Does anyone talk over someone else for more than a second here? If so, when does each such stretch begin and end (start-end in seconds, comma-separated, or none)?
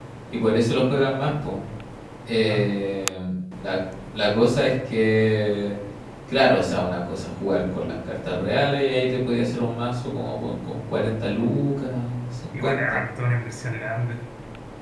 none